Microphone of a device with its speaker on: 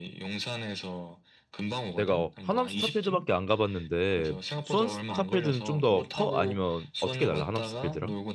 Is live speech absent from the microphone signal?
No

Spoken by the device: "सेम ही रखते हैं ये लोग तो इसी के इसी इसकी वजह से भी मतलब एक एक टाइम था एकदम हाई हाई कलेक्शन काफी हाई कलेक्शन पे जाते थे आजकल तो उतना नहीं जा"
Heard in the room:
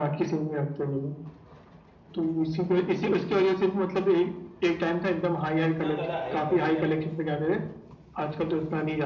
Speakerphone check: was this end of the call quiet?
No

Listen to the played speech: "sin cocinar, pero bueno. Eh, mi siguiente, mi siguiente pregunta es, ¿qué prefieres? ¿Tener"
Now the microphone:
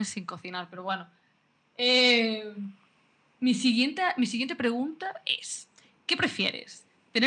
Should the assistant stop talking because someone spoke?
No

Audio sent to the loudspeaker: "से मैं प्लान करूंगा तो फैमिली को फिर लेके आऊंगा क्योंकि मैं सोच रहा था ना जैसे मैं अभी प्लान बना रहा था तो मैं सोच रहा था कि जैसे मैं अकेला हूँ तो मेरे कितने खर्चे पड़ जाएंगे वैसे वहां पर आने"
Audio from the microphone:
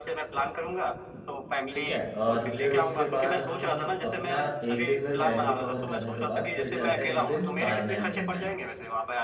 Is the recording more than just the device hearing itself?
Yes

